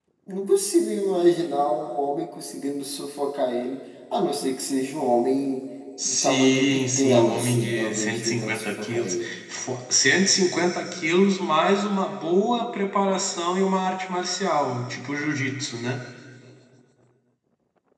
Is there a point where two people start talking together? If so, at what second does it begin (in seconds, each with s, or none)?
6.0 s